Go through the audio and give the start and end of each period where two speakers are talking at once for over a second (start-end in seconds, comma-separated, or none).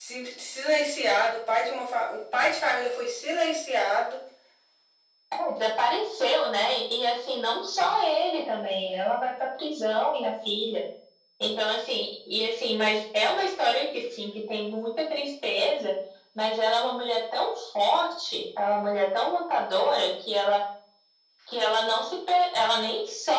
none